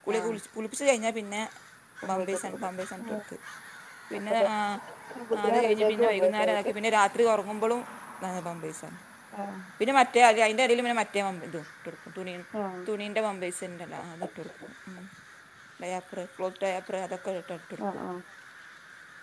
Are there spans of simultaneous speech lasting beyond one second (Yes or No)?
Yes